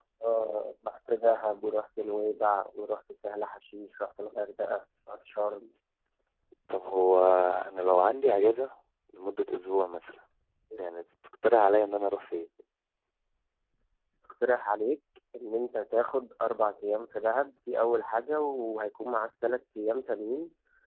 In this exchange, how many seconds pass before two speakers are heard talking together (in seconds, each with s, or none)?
none